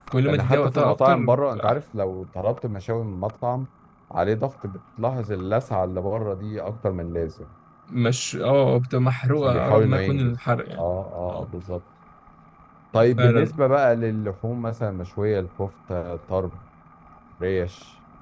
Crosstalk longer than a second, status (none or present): present